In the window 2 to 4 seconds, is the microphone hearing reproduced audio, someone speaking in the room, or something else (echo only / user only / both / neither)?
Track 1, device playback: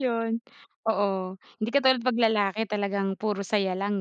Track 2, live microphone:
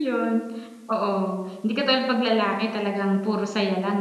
echo only